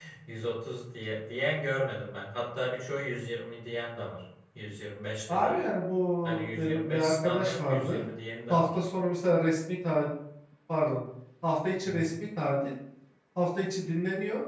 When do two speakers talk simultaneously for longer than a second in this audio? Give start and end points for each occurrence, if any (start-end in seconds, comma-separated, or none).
6.2-8.0